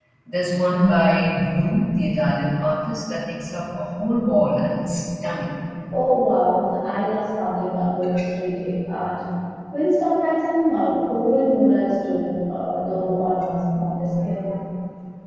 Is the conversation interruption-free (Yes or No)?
Yes